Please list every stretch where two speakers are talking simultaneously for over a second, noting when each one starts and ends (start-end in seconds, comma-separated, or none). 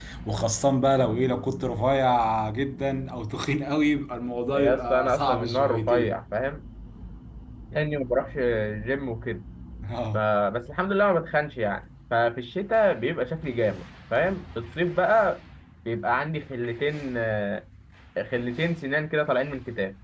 4.5-6.2